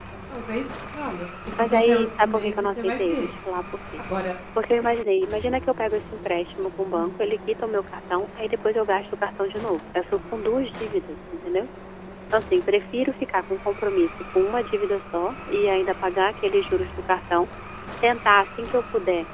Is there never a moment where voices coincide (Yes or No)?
No